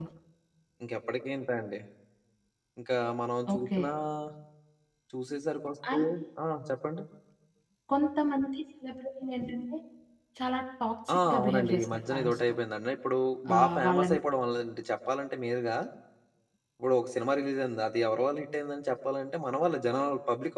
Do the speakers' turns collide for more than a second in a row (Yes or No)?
Yes